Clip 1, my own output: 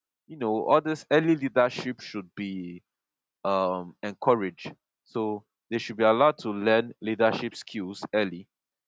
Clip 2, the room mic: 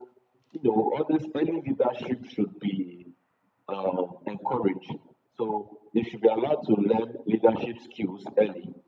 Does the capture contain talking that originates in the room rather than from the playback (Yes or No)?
No